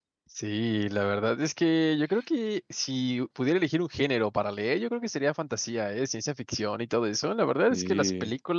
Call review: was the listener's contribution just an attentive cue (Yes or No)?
Yes